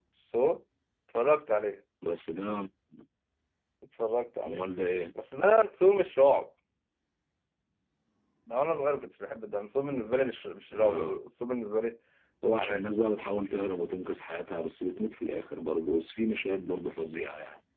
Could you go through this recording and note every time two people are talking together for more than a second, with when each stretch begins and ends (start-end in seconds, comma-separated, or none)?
none